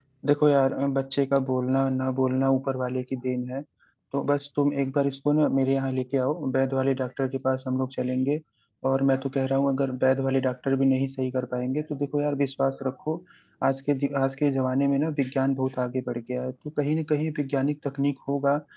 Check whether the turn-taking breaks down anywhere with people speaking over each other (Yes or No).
No